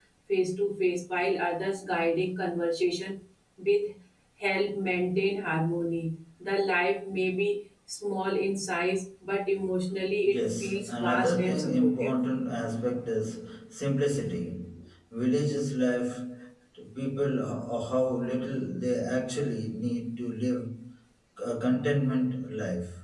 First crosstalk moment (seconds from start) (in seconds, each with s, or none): 10.2 s